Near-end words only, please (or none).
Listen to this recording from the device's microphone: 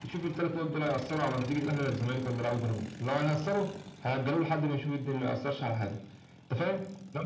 none